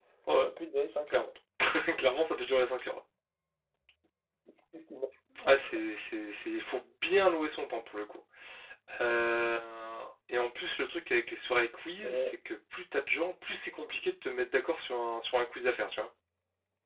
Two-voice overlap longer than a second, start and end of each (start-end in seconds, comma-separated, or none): none